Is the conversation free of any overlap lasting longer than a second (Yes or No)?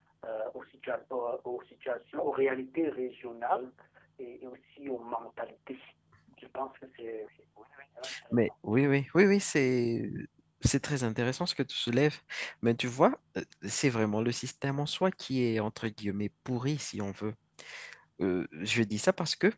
Yes